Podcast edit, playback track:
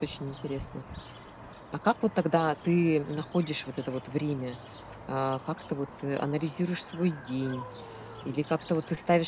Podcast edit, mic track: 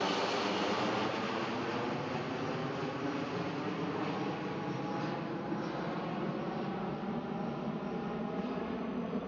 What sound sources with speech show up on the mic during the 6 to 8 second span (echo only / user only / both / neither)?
neither